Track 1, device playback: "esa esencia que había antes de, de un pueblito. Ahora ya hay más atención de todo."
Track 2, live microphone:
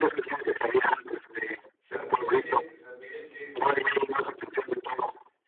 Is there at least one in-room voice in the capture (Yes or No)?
Yes